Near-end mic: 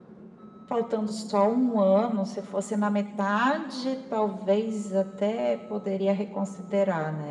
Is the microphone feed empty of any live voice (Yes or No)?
Yes